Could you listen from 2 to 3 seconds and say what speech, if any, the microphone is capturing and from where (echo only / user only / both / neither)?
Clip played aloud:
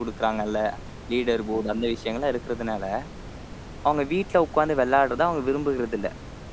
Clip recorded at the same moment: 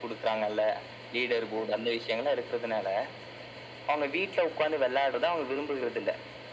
echo only